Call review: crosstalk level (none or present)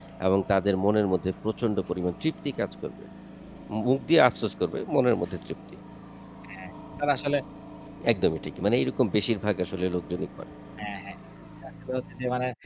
none